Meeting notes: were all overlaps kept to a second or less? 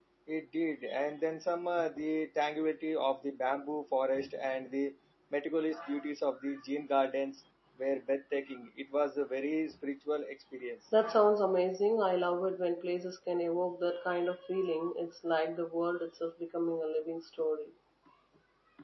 Yes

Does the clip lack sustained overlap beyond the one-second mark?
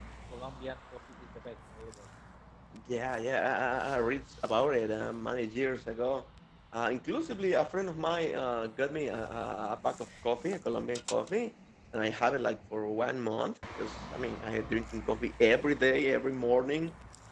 Yes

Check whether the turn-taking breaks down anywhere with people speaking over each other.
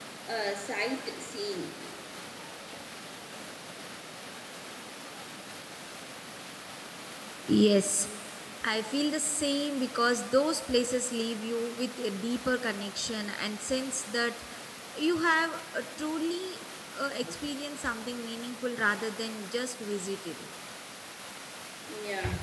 No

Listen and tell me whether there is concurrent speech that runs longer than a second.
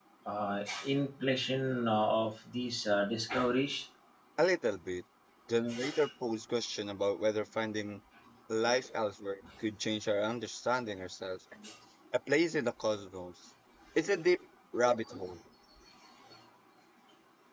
No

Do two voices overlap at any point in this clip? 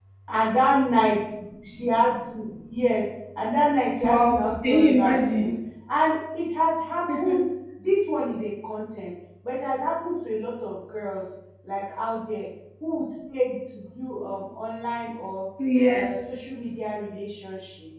Yes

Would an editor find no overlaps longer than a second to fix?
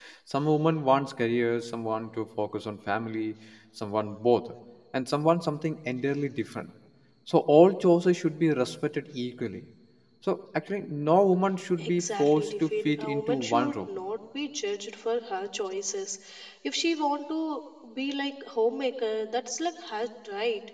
No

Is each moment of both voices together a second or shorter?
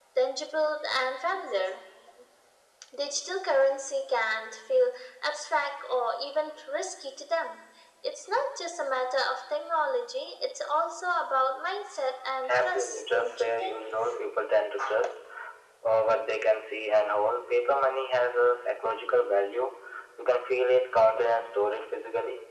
No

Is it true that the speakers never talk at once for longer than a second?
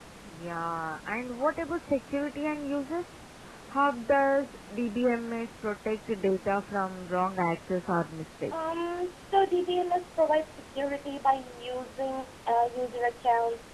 Yes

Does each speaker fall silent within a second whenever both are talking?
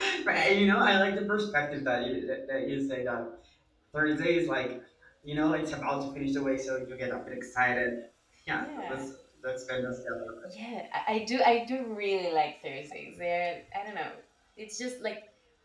Yes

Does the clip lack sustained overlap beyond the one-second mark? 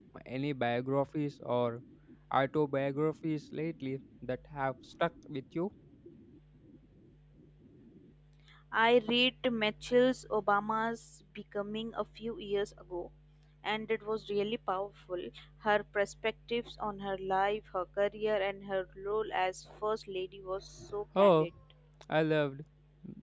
Yes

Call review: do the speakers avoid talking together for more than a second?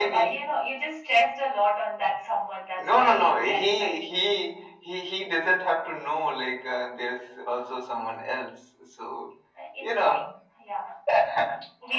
No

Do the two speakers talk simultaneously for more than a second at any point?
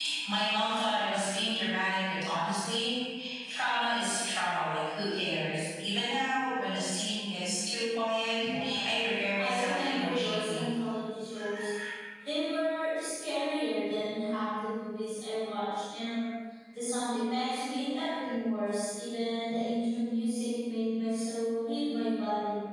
Yes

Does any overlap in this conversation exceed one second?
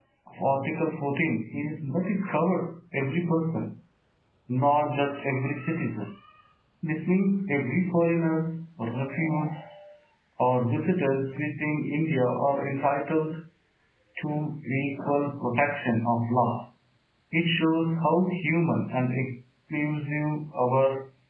No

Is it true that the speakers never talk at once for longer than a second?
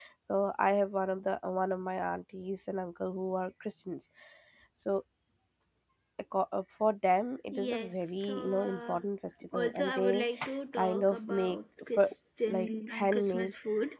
No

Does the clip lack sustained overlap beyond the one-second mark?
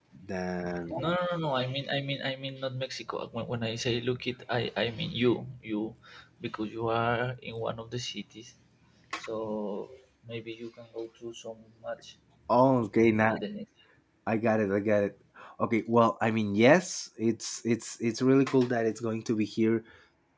Yes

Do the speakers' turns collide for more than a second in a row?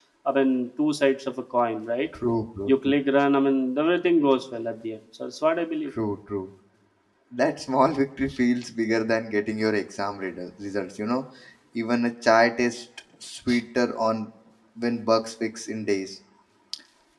No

